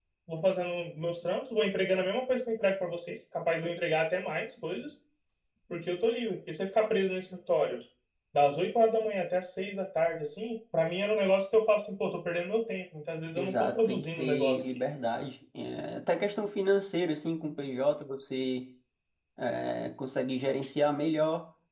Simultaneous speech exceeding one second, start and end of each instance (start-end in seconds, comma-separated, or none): 13.3-14.6